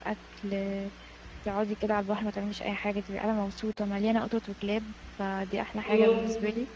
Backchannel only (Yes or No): No